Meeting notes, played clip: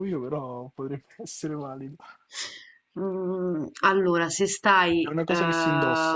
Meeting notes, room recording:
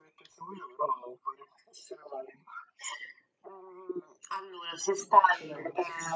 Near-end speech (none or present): present